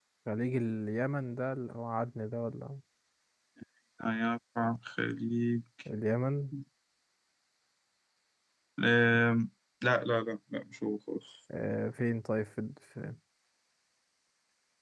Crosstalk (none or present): none